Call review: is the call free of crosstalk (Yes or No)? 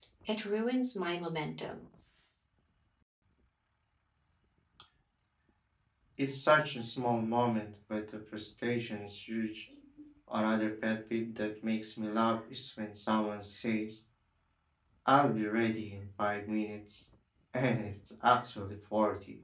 Yes